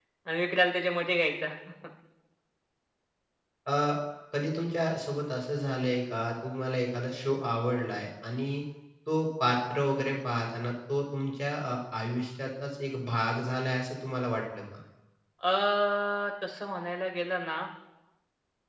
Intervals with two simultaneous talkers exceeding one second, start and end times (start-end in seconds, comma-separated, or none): none